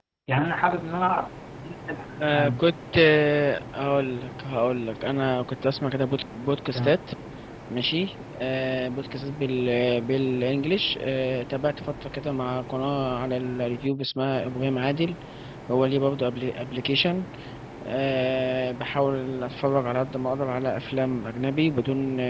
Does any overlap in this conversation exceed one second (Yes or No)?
No